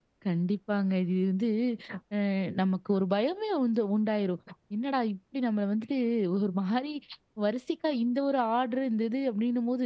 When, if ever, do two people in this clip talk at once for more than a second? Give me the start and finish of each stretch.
none

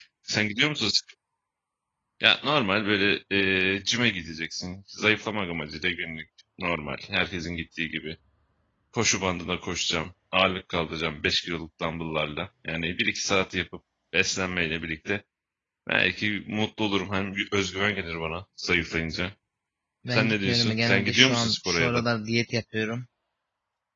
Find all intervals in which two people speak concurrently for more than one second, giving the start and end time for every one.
20.1-22.0

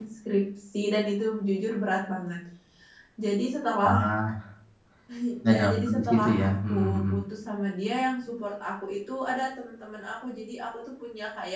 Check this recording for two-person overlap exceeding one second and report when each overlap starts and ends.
5.4-7.1

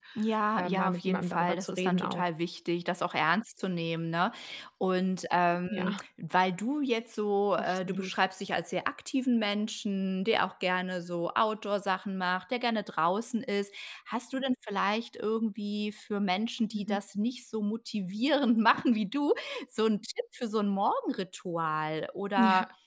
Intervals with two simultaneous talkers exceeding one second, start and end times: 0.6-2.2

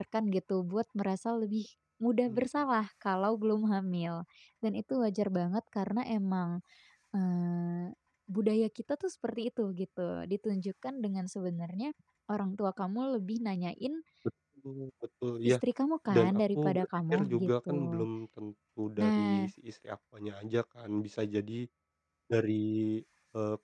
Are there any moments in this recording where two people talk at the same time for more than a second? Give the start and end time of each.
16.1-18.0

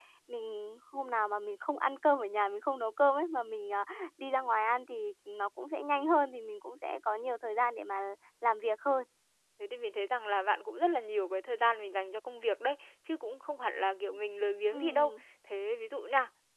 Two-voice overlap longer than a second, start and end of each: none

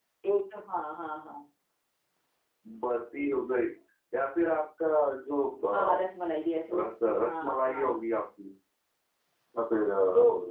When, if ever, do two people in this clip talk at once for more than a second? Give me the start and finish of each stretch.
6.8-8.0

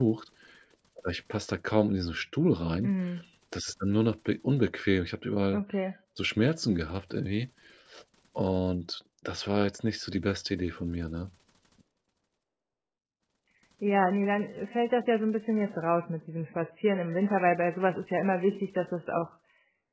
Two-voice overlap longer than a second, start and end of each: none

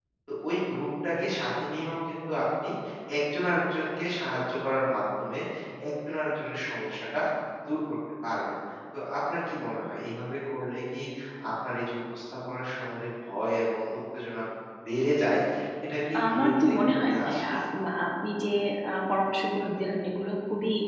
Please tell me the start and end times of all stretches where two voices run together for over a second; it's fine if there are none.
16.2-17.5

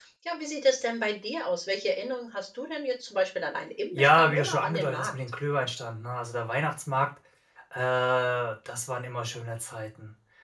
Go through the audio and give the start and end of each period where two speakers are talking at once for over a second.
3.9-5.1

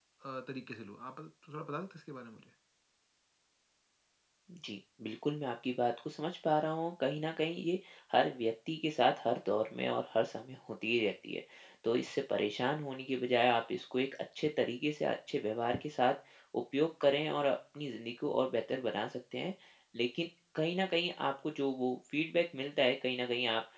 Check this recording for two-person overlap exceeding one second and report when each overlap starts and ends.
none

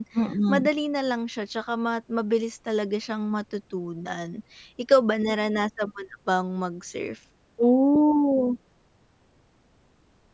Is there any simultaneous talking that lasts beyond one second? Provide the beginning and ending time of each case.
none

